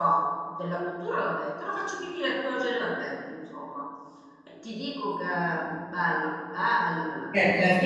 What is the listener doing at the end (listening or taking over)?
taking over